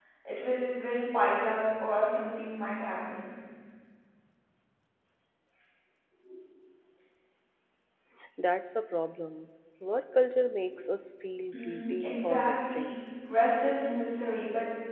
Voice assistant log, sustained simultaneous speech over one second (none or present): present